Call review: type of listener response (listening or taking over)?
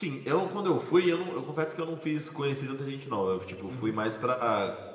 listening